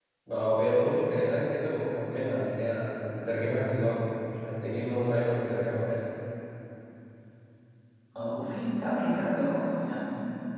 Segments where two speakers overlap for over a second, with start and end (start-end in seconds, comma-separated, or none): none